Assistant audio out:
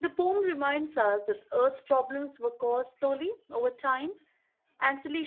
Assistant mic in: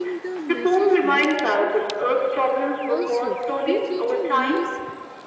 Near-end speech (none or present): present